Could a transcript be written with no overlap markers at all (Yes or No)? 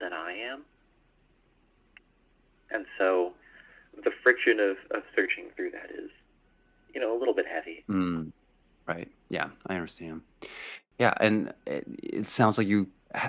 Yes